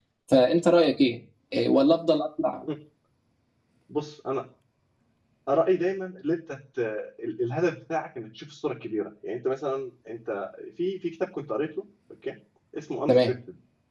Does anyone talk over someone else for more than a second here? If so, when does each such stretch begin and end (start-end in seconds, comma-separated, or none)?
none